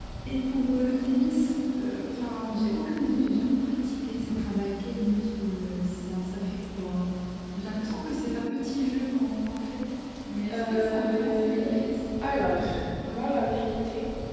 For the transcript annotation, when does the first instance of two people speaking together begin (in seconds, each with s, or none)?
10.5 s